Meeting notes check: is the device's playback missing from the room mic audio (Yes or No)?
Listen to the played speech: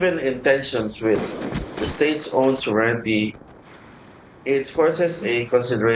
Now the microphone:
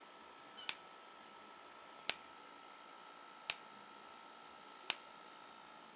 Yes